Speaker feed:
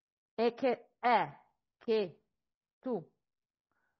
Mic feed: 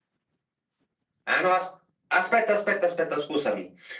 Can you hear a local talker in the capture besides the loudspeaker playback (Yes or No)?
Yes